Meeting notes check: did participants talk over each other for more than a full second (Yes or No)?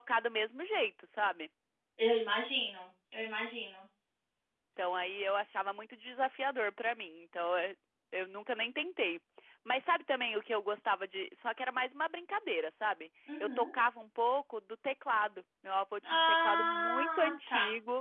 Yes